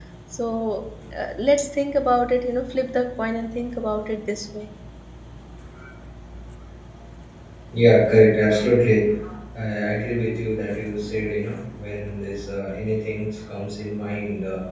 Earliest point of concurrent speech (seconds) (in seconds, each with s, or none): none